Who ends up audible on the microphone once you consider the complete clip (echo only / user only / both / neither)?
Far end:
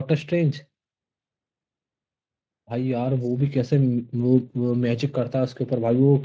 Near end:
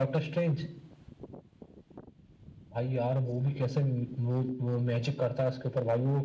echo only